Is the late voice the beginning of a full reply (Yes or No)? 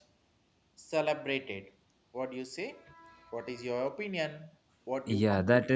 Yes